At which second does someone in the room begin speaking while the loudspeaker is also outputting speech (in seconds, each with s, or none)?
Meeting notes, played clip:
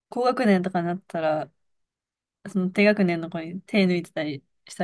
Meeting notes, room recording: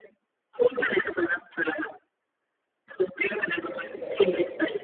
3.5 s